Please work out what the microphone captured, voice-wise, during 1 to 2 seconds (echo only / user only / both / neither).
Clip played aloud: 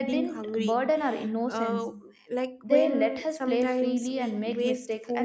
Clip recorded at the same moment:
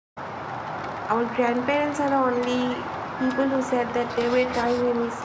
user only